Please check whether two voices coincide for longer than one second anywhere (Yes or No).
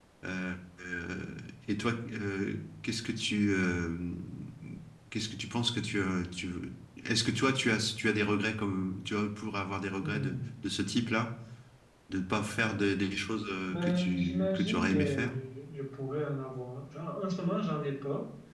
Yes